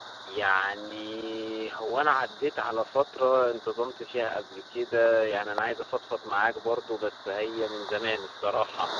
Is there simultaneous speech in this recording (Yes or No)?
No